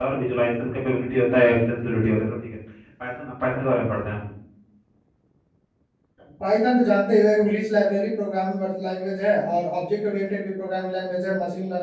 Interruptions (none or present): none